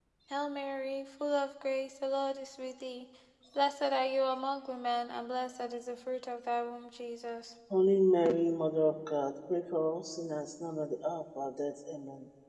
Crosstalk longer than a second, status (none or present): none